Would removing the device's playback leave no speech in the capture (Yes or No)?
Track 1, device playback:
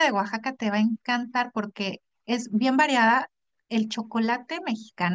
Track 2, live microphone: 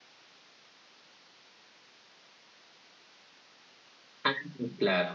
No